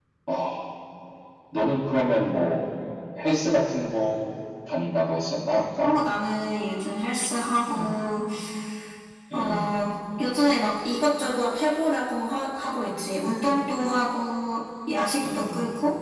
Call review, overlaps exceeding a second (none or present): none